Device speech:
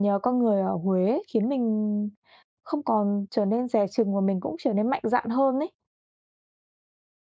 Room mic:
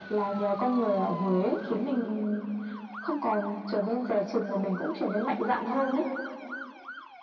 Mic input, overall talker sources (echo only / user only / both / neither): echo only